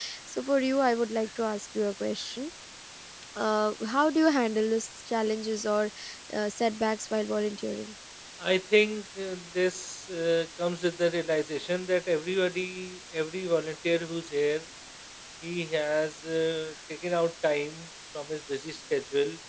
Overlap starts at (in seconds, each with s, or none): none